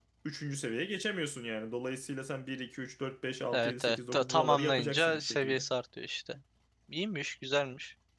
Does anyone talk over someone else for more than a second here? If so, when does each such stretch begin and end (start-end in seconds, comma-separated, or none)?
3.5-5.7